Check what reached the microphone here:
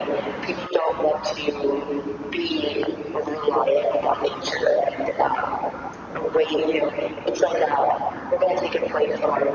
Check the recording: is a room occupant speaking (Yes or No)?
No